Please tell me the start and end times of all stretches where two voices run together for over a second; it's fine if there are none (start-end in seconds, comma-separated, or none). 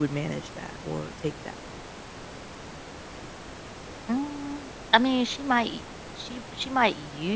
none